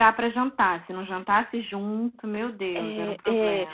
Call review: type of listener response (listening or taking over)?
taking over